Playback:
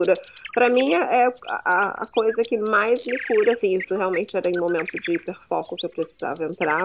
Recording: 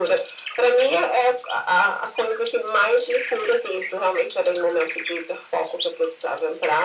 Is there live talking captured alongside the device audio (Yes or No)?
No